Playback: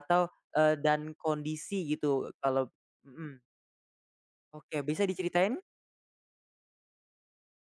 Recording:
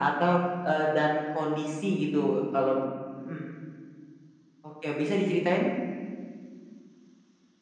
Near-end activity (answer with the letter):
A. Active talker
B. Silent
B